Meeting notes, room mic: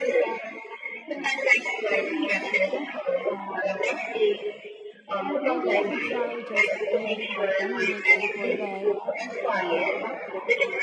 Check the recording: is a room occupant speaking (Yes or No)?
Yes